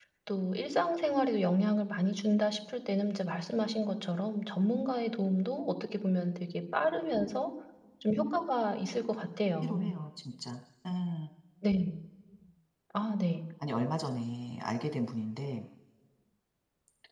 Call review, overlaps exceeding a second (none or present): none